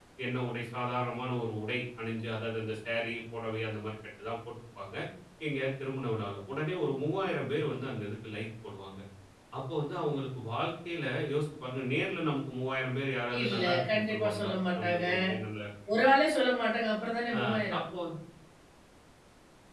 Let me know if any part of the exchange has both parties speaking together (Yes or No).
Yes